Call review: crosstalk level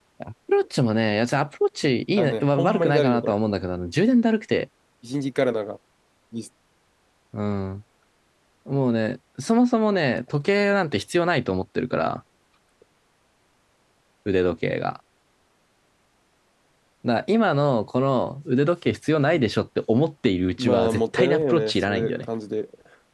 present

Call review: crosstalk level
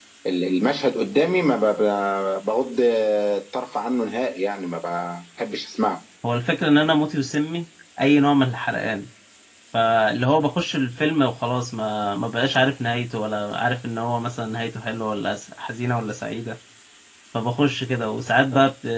none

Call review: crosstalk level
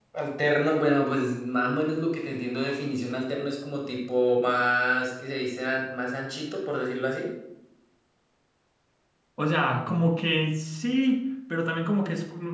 none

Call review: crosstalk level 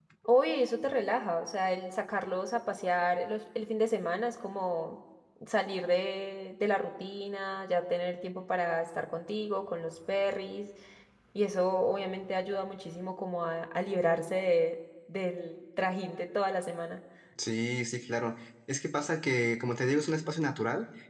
none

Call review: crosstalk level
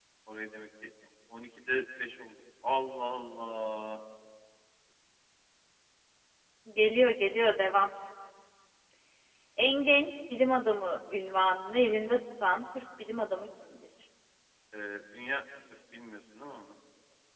none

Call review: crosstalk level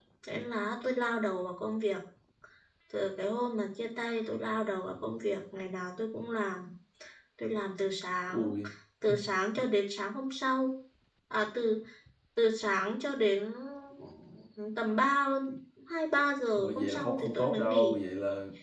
present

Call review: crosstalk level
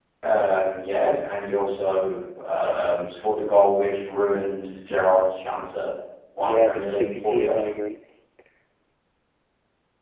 present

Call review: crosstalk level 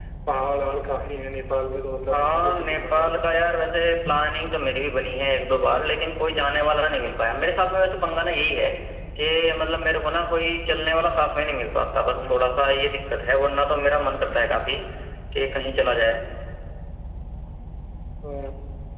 present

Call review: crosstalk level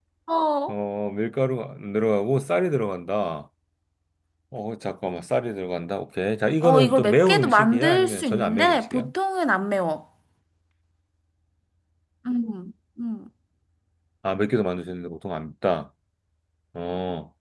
present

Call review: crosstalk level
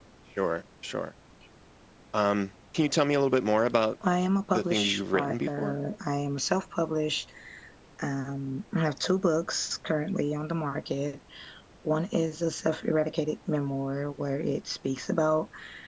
present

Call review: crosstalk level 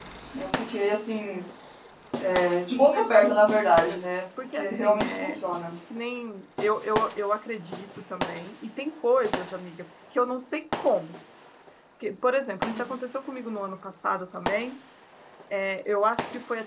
present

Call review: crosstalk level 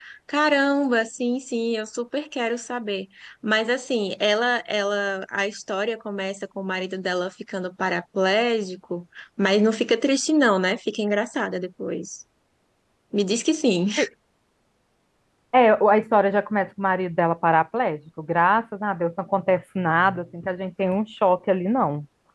none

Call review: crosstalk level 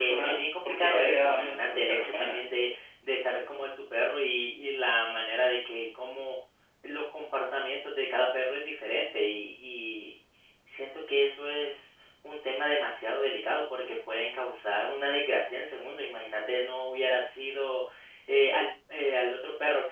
present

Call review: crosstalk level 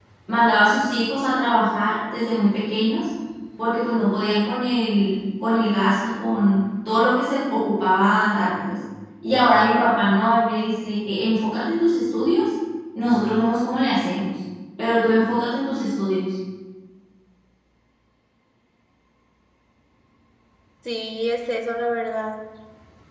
none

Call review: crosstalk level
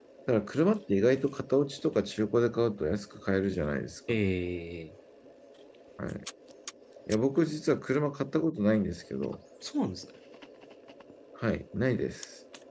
none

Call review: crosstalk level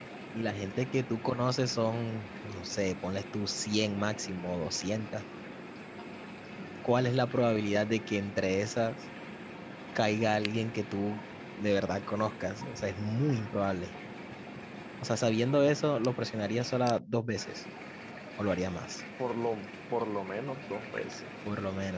none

